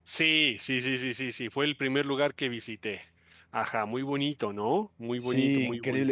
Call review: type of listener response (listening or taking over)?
taking over